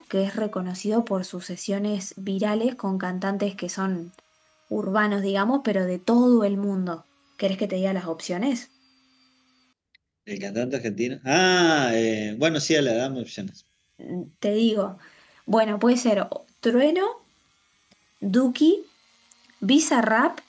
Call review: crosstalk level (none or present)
none